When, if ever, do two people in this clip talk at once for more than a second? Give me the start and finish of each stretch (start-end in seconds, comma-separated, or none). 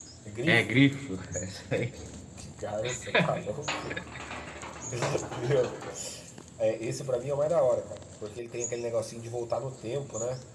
none